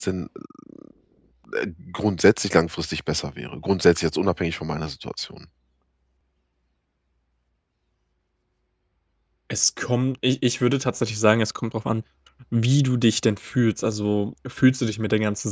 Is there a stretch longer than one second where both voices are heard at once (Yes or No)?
No